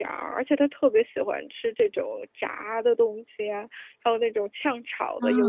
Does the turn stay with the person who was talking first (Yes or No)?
Yes